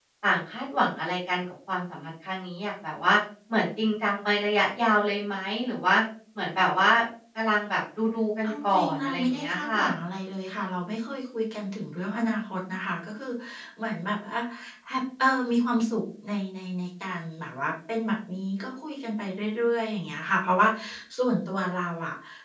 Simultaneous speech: Yes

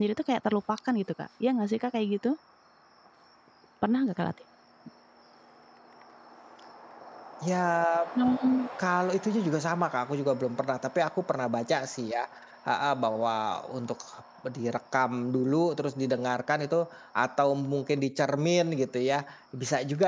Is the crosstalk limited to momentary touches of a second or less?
Yes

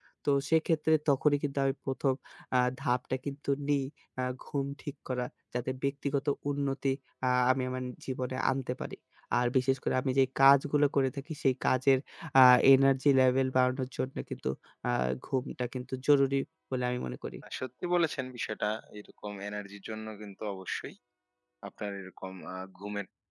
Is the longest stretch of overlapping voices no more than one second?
Yes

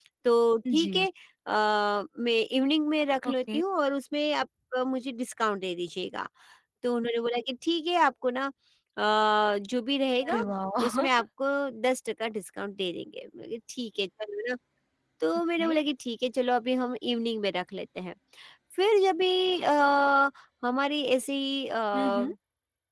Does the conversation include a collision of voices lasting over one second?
No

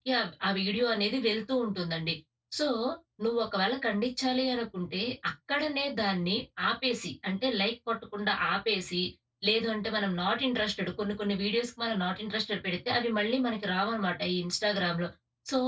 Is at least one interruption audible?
No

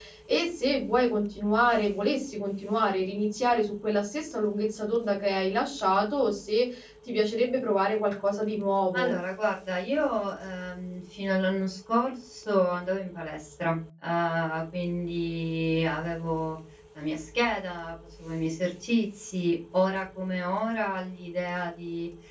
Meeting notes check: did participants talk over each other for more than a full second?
No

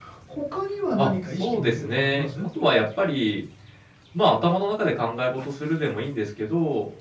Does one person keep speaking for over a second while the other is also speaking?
Yes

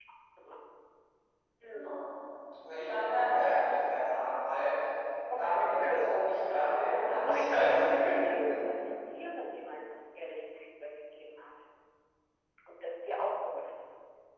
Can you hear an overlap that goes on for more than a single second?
Yes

